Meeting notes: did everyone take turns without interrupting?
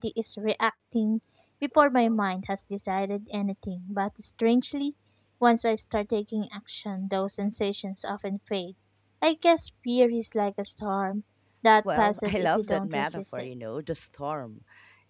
No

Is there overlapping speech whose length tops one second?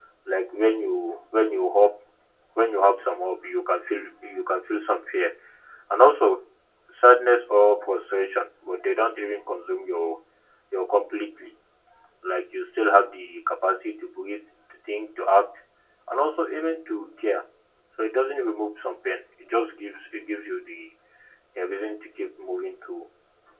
No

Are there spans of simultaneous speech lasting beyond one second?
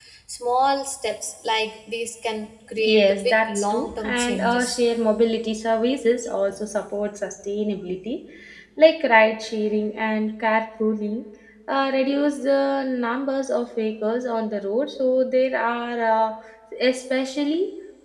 Yes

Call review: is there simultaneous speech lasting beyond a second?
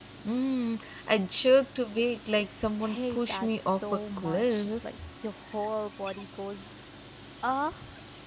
Yes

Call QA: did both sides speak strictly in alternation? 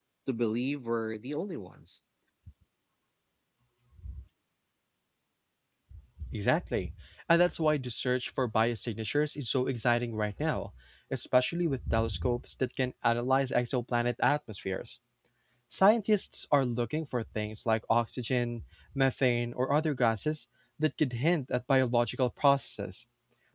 Yes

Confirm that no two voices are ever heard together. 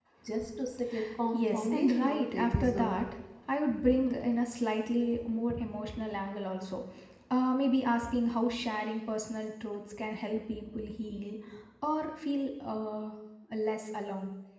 No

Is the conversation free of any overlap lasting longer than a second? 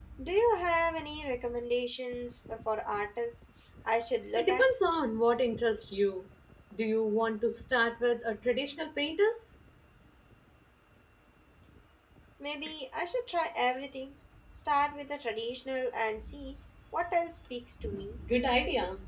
Yes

